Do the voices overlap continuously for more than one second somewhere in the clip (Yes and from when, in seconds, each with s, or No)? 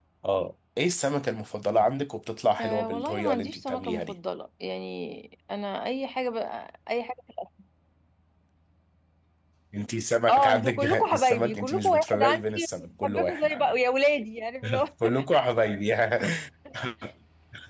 Yes, from 2.6 s